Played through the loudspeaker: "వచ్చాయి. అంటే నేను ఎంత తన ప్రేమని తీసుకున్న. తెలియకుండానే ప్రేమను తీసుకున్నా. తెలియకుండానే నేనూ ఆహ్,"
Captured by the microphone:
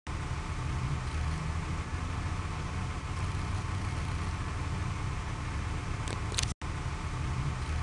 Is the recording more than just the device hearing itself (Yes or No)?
No